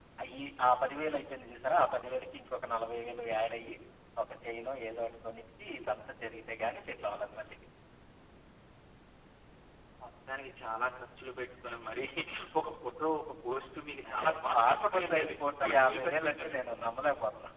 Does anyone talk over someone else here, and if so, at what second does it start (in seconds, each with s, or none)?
14.1 s